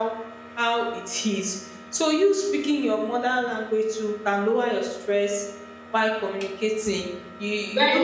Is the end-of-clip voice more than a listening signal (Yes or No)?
No